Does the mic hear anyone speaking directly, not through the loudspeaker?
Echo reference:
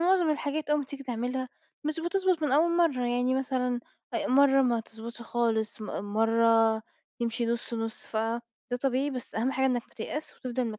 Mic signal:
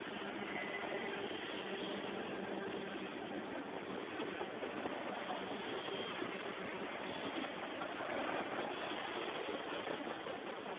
No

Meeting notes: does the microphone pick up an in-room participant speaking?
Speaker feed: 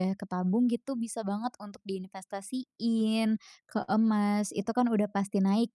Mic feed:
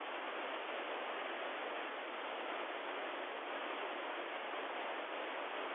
No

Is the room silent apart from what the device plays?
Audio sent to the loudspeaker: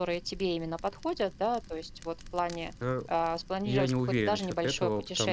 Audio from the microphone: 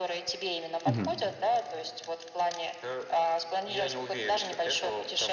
No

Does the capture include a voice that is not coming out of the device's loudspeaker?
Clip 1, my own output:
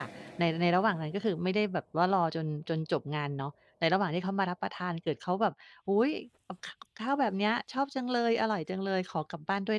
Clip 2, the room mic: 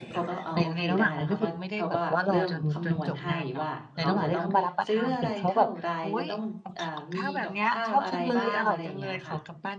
Yes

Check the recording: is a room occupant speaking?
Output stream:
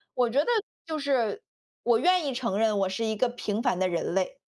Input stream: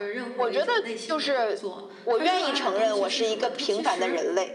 Yes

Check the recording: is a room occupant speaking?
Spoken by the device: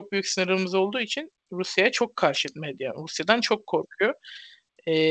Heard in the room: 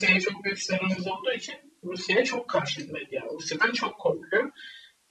No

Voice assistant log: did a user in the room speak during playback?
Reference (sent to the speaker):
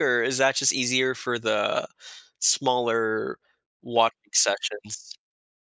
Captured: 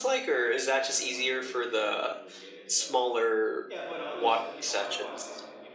Yes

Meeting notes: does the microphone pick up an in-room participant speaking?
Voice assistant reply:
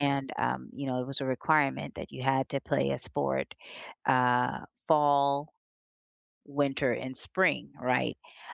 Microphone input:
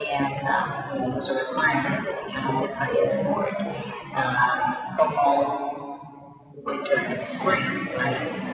Yes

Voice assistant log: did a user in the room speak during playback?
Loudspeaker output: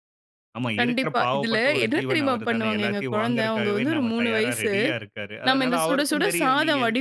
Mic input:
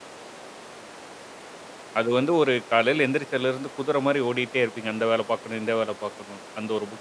Yes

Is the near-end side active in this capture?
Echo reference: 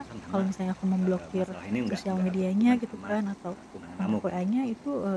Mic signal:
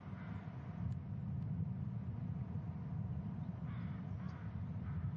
No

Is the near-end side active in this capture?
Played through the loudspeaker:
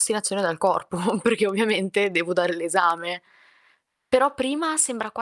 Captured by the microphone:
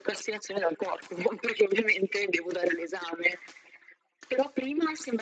No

